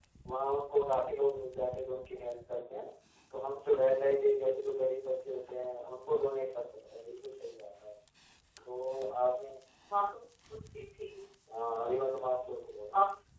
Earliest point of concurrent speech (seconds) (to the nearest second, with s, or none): none